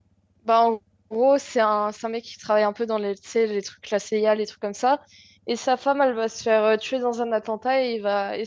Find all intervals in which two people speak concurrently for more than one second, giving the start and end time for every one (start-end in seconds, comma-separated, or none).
none